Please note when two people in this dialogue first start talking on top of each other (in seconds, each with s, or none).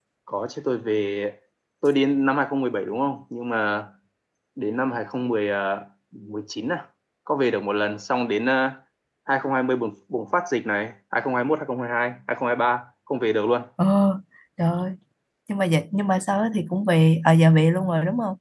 none